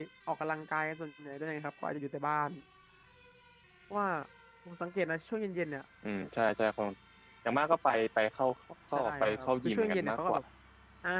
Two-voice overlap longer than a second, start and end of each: 8.9-10.4

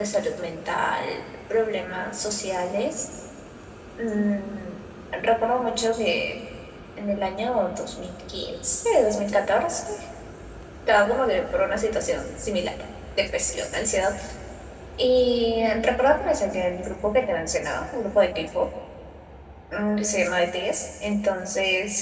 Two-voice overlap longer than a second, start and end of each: none

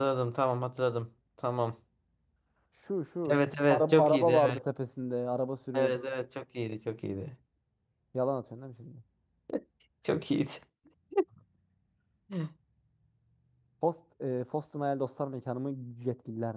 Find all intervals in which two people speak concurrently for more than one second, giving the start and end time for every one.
3.3-4.6

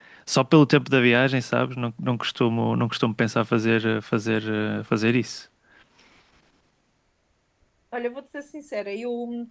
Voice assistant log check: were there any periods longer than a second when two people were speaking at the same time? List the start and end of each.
none

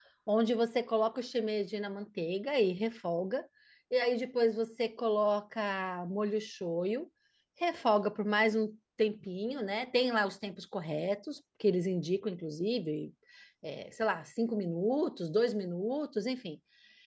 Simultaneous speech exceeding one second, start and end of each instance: none

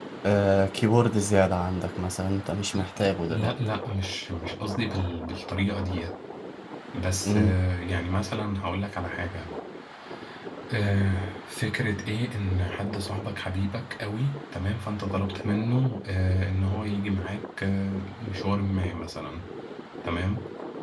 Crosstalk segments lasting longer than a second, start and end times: none

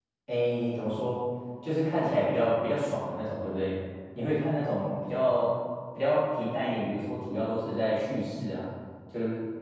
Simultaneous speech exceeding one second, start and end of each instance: none

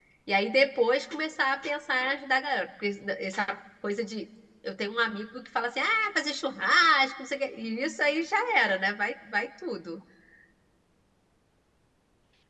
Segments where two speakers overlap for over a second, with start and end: none

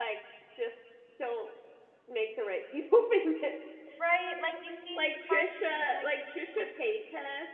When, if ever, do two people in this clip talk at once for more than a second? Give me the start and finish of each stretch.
5.0-6.4

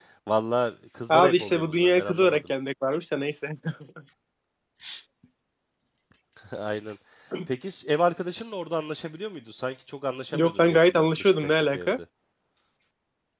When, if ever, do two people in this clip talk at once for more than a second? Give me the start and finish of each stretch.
1.1-2.4, 10.3-12.0

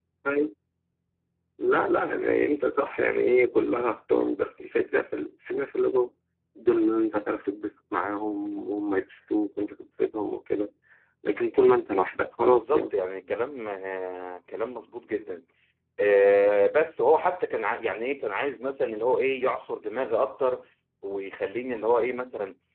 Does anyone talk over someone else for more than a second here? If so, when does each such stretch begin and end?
none

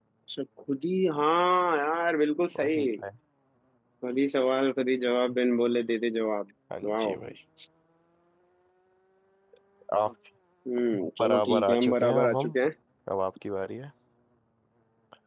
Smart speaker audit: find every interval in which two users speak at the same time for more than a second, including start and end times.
11.2-12.6

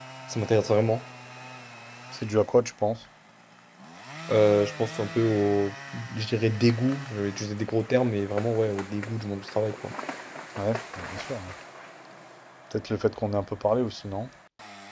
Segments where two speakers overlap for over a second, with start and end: none

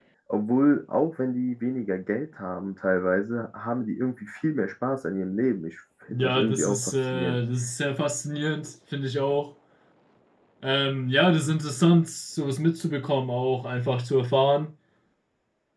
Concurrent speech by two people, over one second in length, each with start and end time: 6.1-7.4

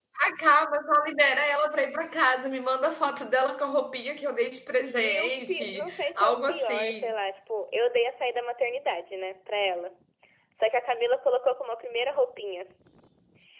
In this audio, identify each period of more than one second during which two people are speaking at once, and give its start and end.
5.0-7.1

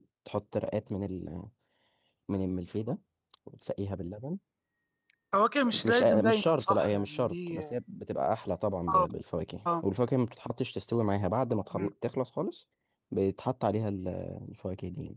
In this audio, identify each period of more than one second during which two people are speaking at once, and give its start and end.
5.8-7.7

